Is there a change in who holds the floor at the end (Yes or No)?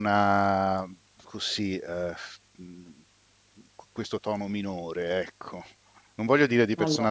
No